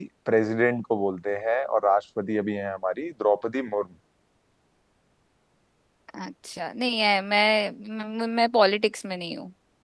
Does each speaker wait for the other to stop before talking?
Yes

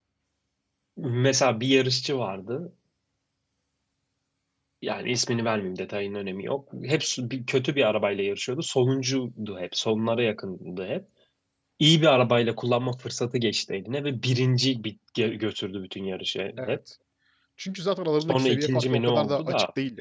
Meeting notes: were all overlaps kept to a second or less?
No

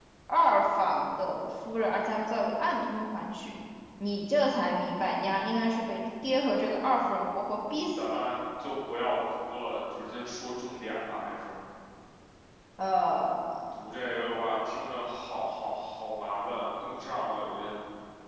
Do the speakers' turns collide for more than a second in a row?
No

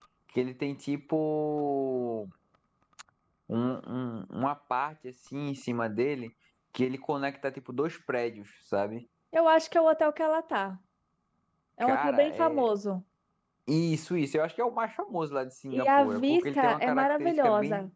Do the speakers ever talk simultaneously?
Yes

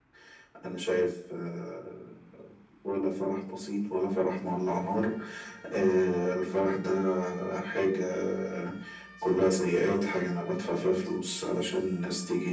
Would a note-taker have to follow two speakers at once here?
No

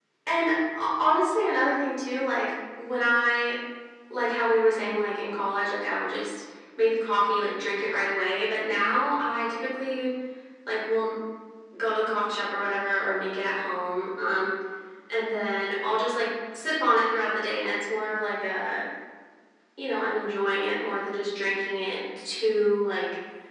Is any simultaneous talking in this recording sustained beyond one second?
No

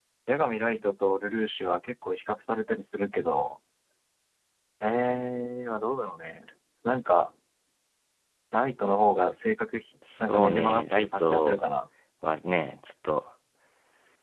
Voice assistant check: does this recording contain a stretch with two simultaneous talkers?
Yes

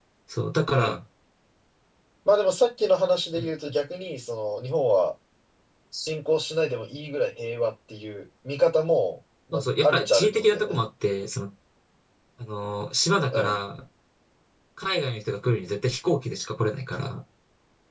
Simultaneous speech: Yes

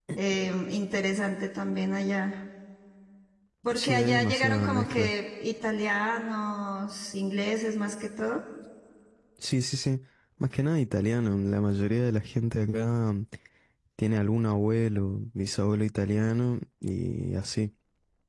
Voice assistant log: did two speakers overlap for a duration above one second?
Yes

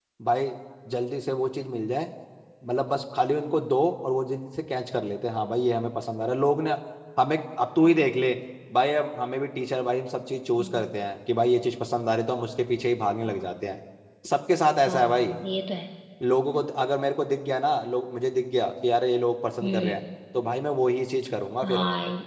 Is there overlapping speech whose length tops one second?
No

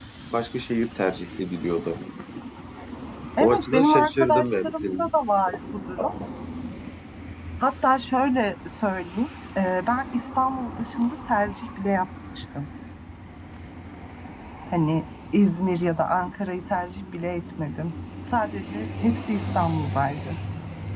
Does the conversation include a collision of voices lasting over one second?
Yes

